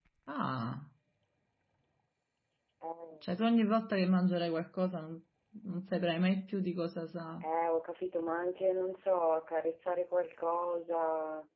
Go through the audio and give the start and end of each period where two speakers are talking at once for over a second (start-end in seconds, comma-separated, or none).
none